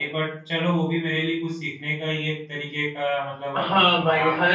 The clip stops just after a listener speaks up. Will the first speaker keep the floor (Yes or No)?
No